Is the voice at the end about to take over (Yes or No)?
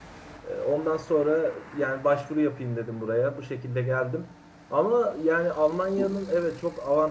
No